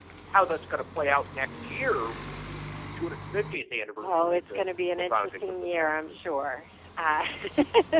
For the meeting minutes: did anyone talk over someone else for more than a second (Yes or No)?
Yes